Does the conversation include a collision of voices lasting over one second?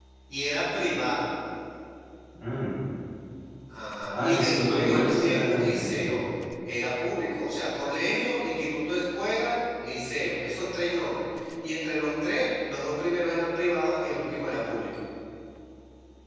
Yes, from 4.2 s

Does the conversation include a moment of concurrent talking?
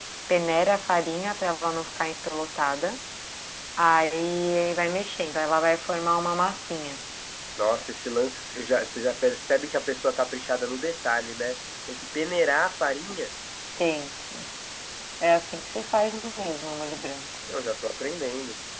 No

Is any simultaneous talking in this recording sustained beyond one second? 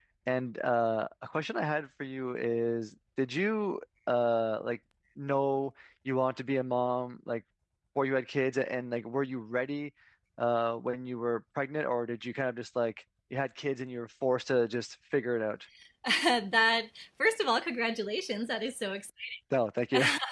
No

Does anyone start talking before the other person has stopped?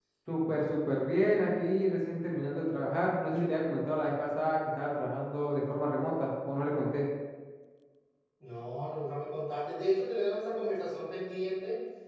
No

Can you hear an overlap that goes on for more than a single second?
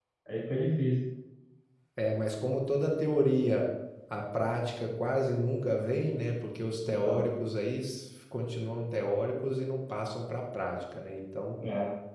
No

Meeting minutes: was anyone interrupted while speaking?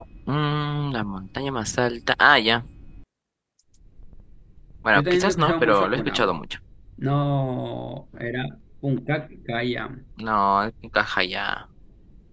Yes, from 4.9 s

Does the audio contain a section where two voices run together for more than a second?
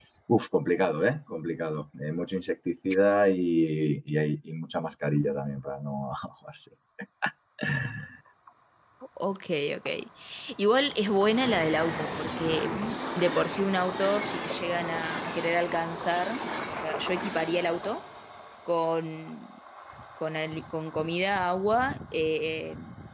No

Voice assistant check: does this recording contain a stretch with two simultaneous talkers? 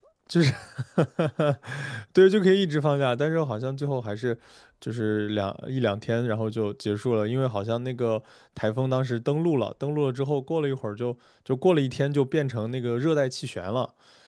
No

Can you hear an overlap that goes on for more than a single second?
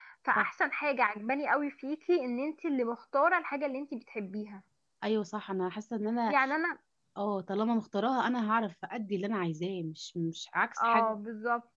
No

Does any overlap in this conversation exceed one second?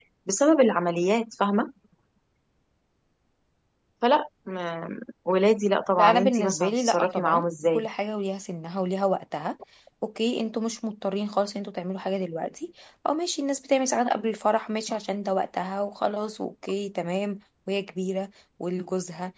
Yes, from 6.0 s

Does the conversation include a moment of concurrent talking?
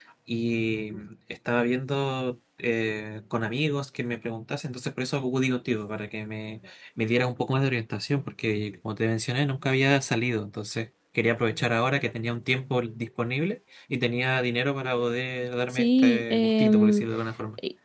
Yes, from 15.7 s

